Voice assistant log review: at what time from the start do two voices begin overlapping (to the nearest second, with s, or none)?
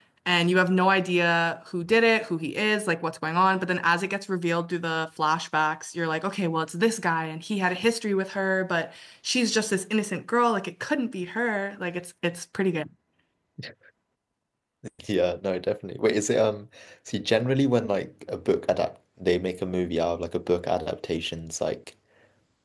none